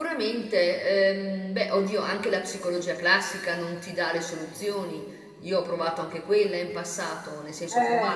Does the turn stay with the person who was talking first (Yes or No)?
Yes